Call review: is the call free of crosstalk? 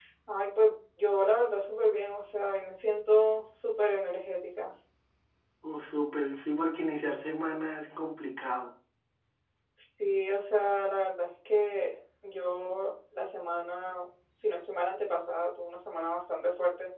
Yes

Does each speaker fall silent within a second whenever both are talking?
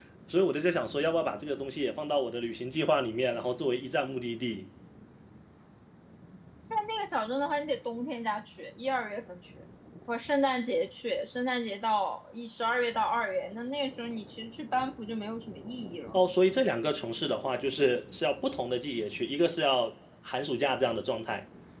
Yes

